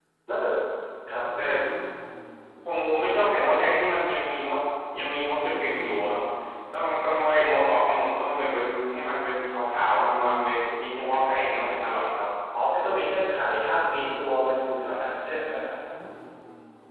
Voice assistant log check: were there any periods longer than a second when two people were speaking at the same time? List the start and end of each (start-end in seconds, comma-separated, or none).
none